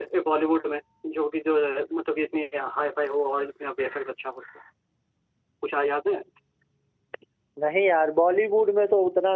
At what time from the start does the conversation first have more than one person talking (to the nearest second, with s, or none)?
none